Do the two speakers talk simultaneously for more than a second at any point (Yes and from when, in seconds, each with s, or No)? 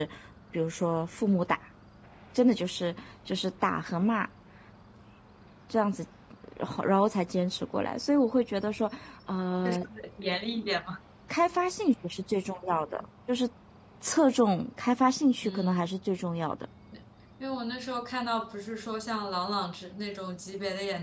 No